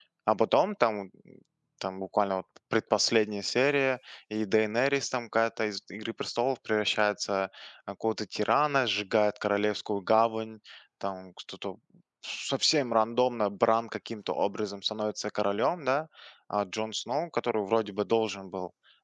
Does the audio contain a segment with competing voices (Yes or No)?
No